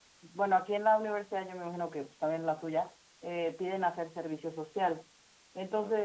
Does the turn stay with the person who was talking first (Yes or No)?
Yes